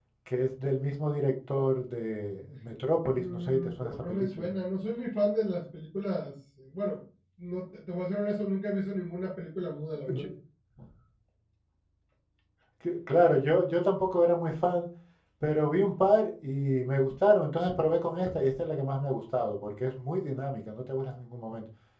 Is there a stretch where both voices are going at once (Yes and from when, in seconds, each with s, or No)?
Yes, from 3.2 s